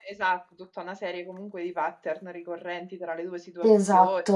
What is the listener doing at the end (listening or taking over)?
listening